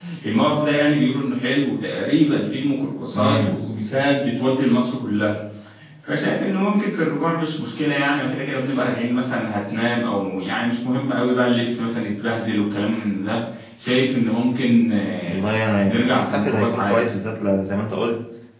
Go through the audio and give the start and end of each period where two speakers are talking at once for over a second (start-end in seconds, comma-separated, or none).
15.9-17.1